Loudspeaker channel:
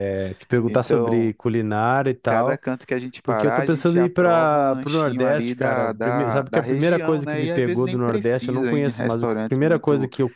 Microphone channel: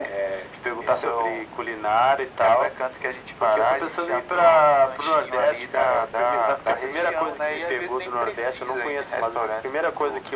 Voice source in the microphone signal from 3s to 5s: echo only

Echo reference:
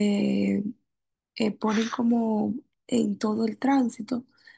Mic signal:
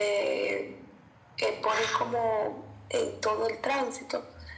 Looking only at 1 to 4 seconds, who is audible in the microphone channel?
echo only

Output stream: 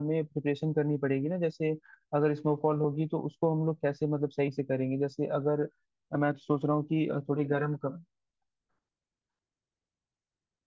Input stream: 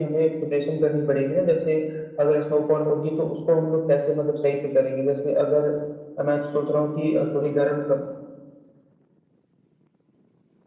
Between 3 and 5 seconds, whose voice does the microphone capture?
echo only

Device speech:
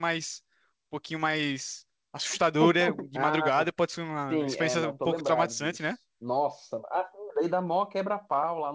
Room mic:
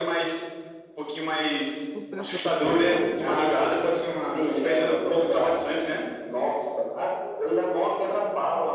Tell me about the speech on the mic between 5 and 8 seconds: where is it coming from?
echo only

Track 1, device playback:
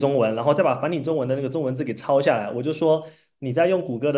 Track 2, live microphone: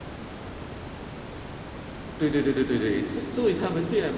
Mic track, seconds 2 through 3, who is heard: user only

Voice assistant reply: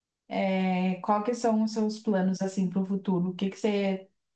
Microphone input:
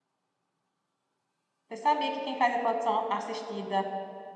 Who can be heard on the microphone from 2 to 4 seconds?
user only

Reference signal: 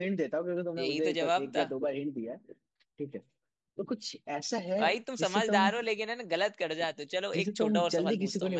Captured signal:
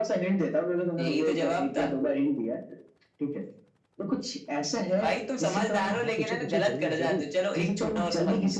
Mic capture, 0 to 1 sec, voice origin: echo only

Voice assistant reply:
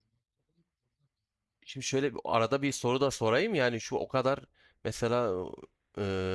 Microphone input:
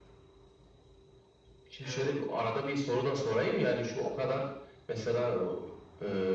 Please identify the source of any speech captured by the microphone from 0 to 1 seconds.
neither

